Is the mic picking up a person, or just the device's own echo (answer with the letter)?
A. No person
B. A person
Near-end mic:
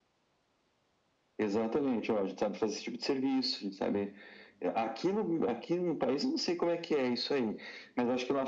A